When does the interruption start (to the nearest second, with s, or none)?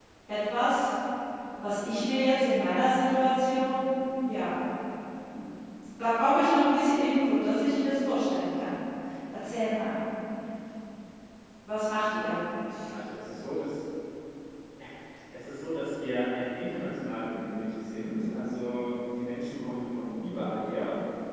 none